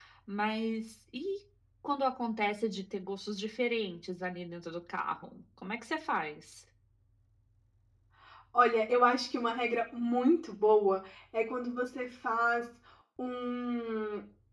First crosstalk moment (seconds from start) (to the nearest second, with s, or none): none